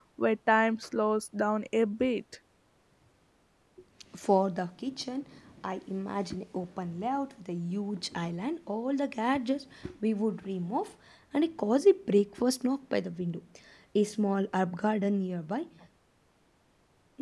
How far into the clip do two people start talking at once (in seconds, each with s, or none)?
none